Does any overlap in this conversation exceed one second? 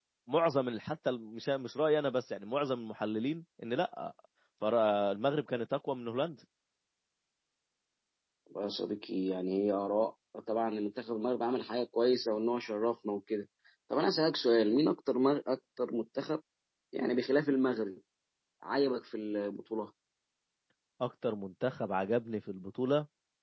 No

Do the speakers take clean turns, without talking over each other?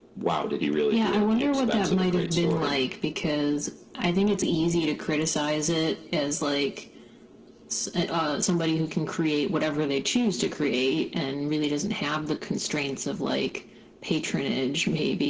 No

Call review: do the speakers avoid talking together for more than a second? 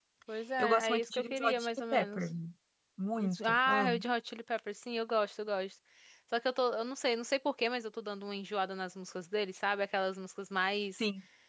No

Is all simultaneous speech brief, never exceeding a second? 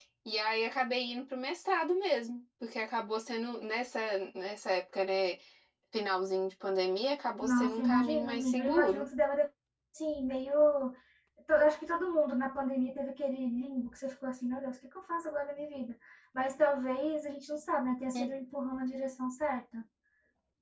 No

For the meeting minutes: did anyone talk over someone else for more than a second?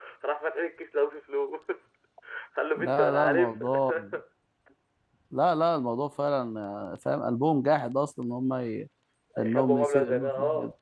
Yes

